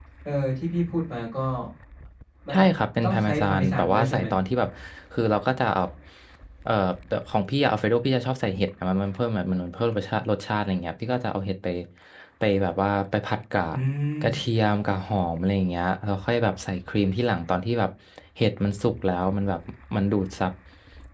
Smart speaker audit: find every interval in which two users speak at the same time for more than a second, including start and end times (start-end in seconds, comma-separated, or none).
3.0-4.2